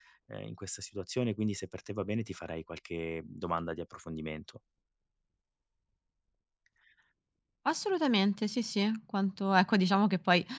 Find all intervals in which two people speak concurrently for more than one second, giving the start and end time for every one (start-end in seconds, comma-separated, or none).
none